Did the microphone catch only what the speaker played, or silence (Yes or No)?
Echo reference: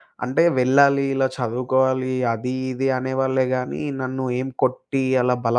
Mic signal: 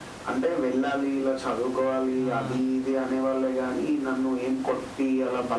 No